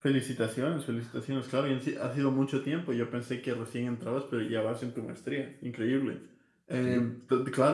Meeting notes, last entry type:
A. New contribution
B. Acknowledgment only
B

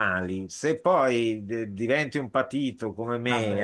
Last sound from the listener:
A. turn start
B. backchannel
B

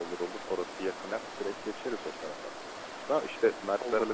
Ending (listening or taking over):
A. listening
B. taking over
A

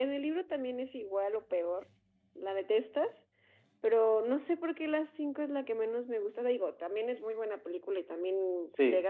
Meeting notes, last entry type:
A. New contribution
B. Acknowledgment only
B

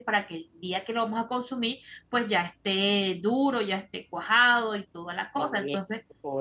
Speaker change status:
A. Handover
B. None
A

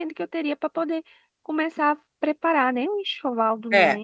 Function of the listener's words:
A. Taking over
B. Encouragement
A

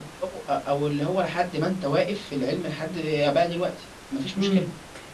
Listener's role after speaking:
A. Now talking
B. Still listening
A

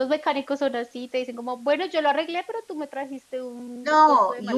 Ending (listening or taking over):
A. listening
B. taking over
B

